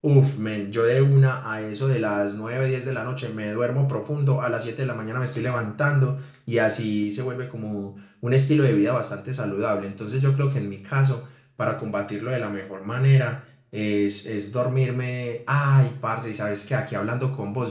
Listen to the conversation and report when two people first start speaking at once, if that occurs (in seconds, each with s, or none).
none